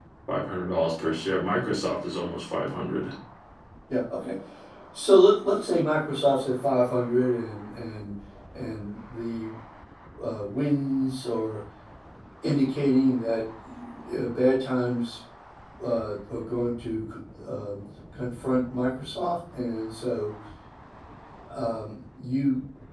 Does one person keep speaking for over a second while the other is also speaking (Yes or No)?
No